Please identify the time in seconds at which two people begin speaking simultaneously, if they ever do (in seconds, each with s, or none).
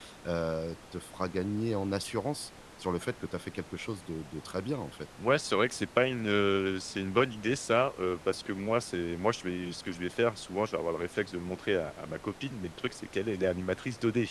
none